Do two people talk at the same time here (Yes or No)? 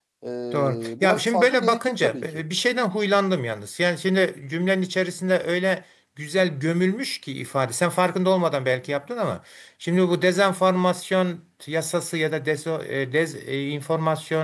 Yes